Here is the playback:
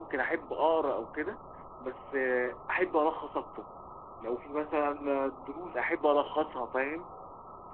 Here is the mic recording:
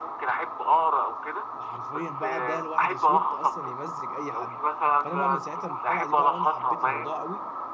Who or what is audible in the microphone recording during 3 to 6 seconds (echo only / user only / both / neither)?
both